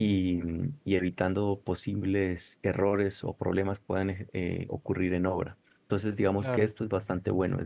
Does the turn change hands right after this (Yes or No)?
No